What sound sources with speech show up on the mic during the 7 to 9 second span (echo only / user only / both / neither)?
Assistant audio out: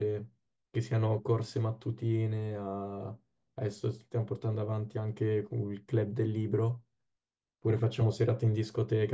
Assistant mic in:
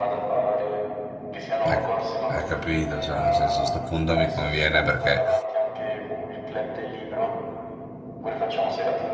echo only